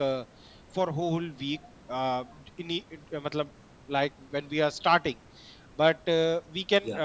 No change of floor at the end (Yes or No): Yes